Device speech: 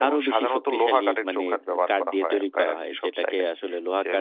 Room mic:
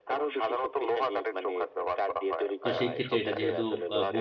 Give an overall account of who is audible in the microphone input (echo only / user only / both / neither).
both